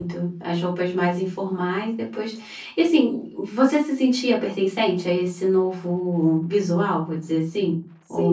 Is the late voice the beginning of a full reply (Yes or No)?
Yes